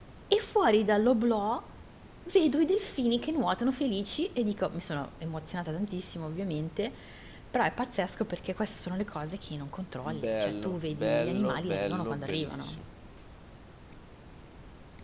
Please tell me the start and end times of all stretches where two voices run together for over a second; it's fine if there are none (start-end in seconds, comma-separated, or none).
10.2-12.8